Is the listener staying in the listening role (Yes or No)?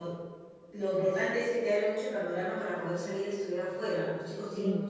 Yes